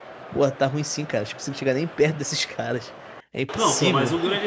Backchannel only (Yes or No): No